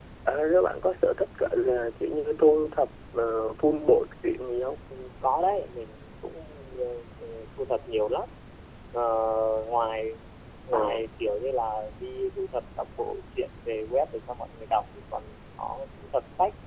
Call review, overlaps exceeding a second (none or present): none